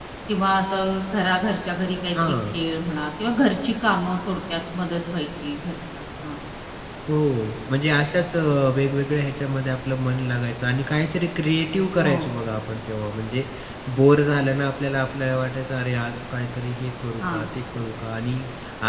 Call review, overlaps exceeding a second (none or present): none